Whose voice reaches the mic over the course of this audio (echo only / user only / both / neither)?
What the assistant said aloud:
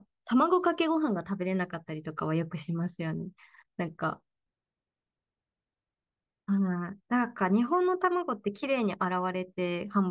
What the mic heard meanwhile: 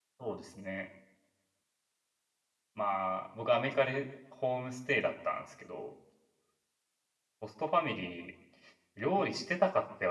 user only